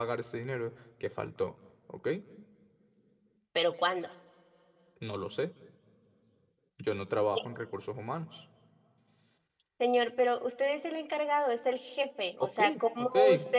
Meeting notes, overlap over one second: none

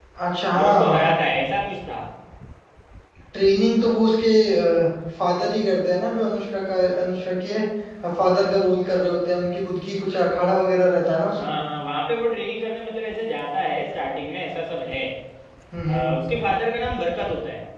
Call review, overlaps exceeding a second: none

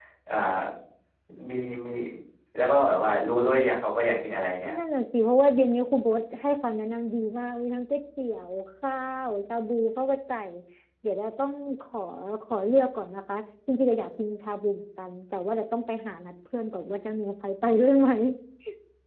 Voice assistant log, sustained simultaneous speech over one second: none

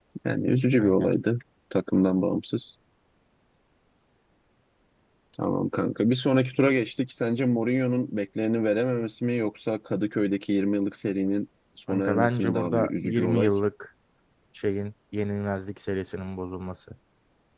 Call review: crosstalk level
present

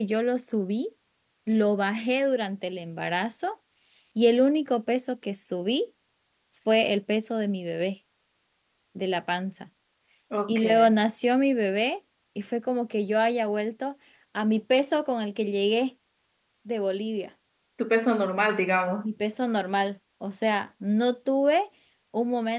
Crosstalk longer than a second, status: none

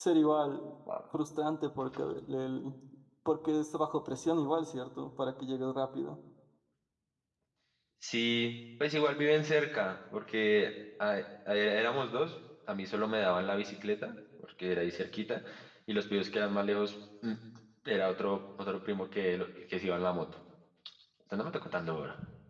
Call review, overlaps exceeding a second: none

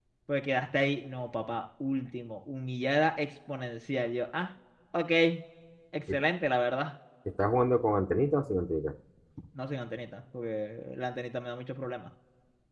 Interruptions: none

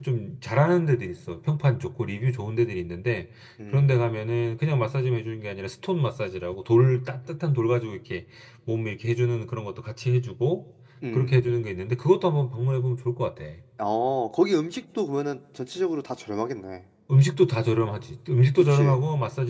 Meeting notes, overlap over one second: none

